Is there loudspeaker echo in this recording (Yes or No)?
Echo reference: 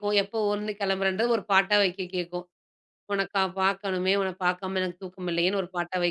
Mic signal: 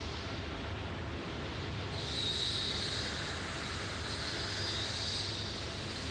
No